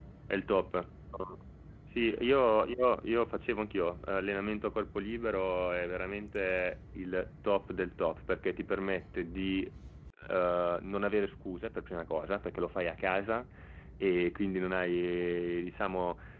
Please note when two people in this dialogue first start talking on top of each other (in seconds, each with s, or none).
none